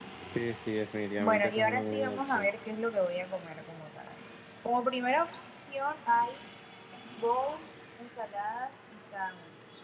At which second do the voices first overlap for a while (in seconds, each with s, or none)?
1.2 s